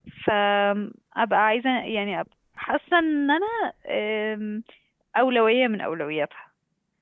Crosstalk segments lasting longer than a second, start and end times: none

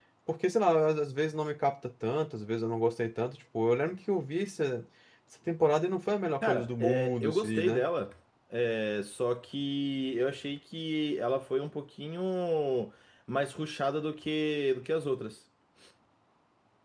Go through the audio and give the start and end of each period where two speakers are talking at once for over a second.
6.4-7.8

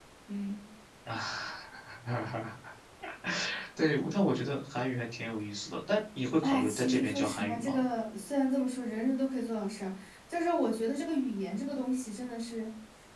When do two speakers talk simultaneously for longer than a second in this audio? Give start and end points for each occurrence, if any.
6.4-7.8

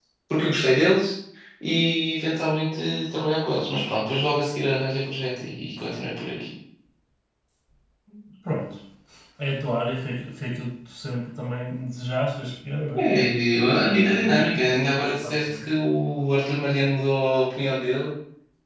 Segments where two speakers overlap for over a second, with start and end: 13.8-15.7

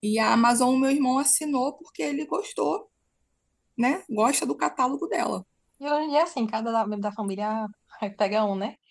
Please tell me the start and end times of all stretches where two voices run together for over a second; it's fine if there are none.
none

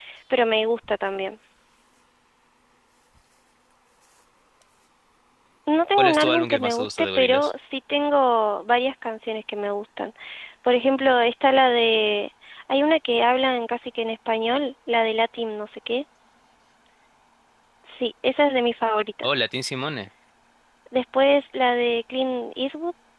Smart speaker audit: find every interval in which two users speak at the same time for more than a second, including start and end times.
6.0-7.5

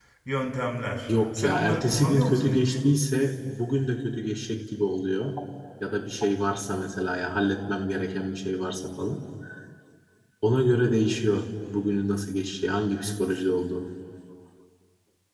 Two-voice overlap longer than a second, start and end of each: 1.1-2.7

